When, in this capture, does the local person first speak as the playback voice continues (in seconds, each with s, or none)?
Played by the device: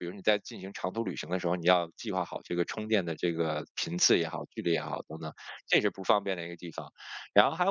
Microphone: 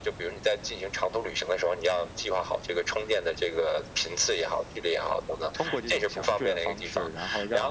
5.5 s